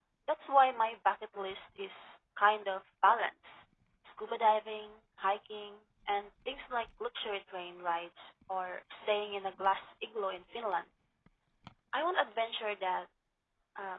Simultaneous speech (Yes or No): No